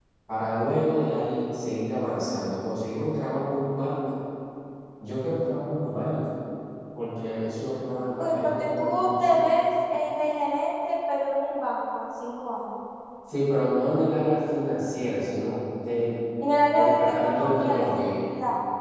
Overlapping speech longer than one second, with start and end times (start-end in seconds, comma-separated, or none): 8.2-9.6, 16.7-18.0